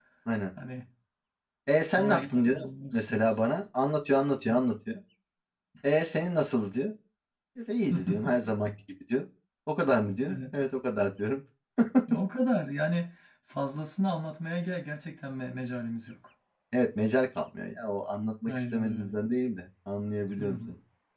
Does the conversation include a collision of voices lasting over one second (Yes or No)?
Yes